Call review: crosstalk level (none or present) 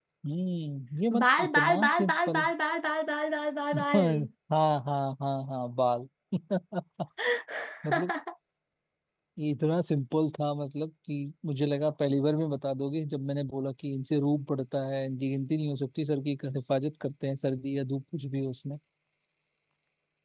present